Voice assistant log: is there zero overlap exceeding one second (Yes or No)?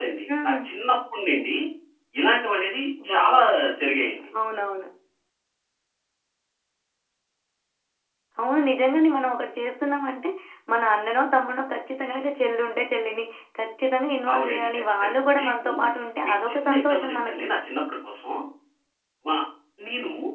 No